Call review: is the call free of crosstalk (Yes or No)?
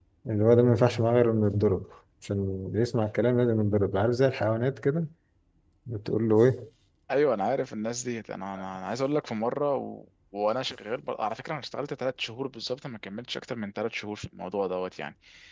Yes